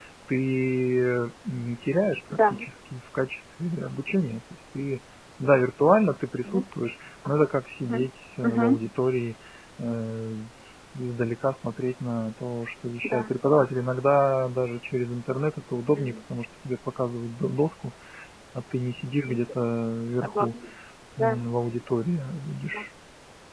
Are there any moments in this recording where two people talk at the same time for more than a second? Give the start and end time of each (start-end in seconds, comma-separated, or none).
none